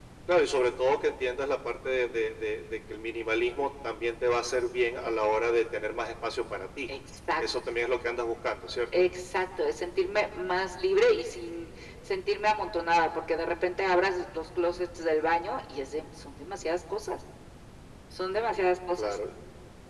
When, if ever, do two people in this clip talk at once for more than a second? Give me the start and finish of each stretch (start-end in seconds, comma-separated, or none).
none